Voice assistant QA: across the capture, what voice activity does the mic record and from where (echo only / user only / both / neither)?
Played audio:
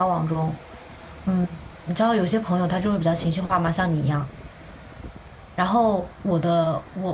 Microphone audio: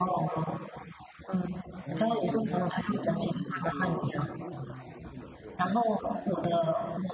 both